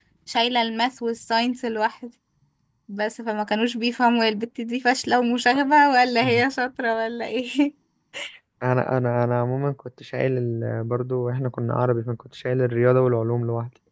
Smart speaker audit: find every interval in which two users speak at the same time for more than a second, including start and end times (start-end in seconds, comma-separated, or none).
none